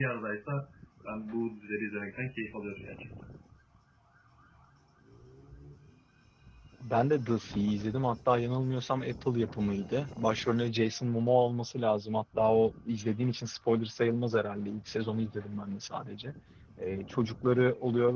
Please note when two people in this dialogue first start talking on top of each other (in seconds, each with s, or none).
none